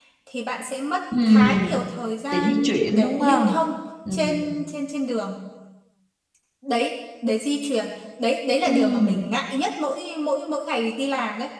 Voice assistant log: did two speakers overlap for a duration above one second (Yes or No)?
Yes